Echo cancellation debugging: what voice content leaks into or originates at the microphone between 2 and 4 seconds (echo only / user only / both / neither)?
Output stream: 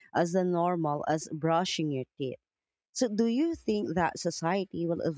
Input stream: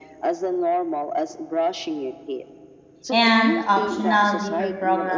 both